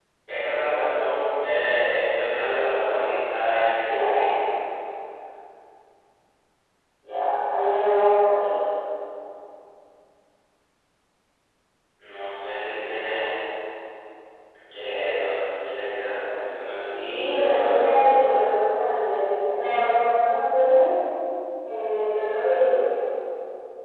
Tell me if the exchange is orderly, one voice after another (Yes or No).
No